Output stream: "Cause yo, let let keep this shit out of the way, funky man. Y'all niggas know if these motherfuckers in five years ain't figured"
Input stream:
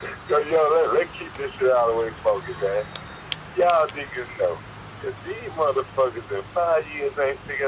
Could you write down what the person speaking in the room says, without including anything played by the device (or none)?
none